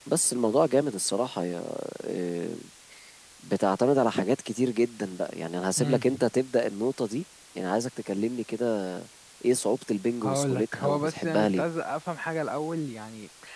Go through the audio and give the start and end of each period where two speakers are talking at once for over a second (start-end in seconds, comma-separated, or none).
10.2-11.6